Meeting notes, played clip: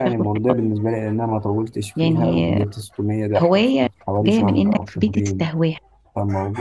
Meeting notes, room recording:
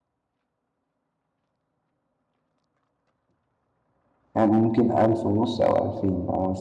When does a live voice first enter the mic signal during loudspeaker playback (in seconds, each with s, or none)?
4.3 s